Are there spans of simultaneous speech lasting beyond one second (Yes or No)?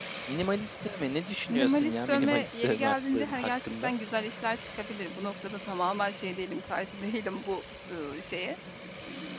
Yes